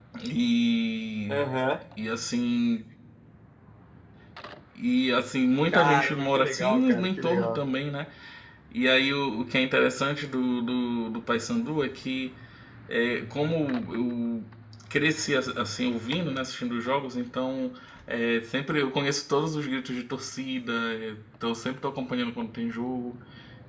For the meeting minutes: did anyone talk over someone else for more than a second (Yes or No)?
Yes